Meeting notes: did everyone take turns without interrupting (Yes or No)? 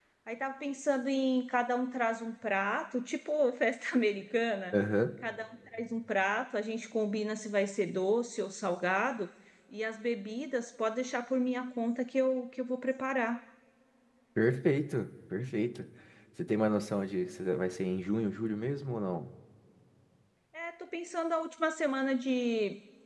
Yes